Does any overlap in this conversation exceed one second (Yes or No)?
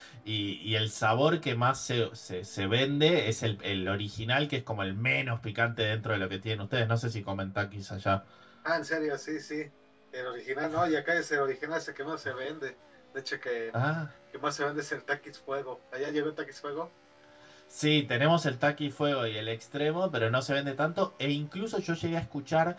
No